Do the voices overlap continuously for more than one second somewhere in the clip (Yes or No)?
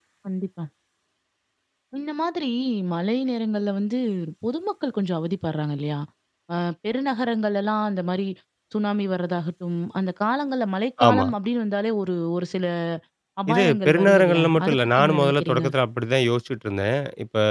Yes